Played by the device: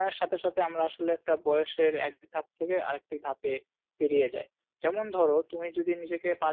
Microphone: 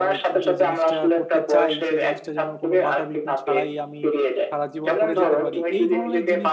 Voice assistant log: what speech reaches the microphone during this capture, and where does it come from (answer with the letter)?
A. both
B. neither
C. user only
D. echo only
A